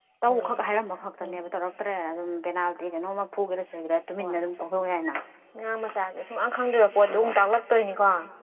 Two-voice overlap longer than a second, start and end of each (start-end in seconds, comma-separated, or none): none